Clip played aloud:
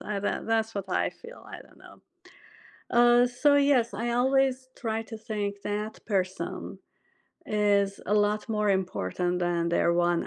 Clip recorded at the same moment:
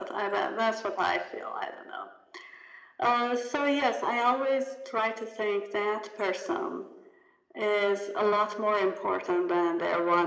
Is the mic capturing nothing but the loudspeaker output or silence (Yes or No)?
Yes